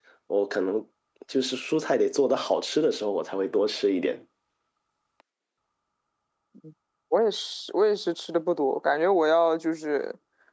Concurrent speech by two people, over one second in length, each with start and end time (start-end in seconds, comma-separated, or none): none